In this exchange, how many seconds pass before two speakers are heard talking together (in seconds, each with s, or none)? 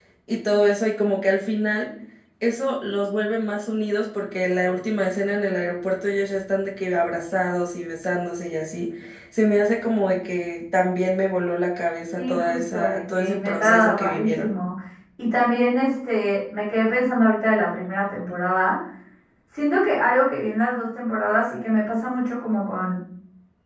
12.2 s